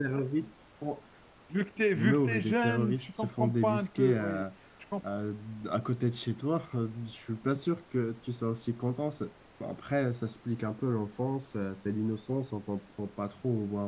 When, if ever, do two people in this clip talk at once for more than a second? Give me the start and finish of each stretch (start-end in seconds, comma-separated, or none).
1.9-4.4